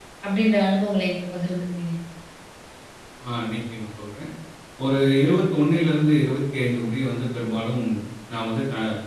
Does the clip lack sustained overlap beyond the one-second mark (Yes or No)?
Yes